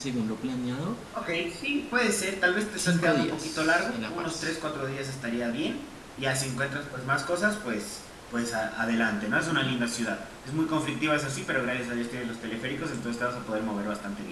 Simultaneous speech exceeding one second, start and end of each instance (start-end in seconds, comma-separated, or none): 2.8-4.6